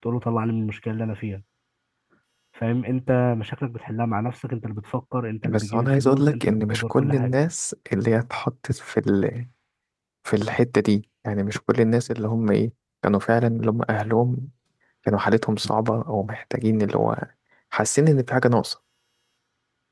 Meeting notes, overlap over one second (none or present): present